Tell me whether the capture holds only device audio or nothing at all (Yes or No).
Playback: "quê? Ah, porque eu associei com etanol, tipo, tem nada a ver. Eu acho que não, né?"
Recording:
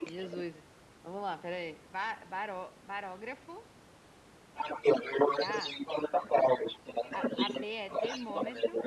No